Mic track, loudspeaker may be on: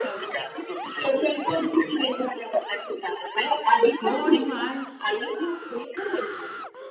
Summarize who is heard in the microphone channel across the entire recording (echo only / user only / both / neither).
both